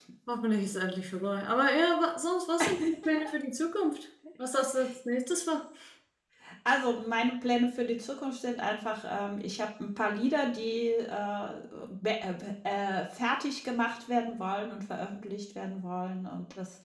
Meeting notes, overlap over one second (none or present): none